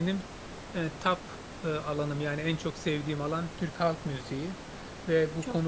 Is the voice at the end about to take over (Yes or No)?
No